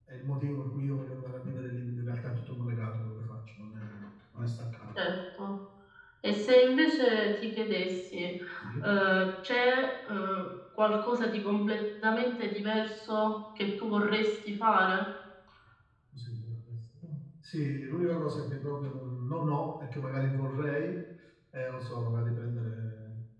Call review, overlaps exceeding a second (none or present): none